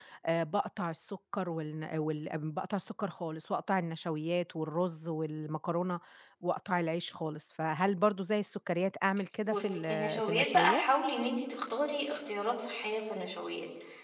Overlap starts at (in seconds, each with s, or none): 9.4 s